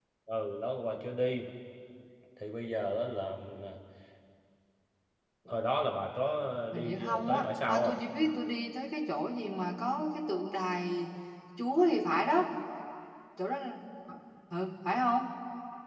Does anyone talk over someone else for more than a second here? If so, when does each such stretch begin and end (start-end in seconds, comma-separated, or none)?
6.7-8.0